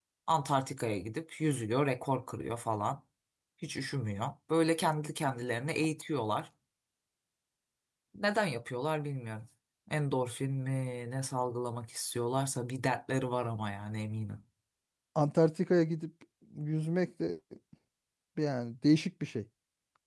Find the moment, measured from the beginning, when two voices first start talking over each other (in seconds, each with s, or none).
none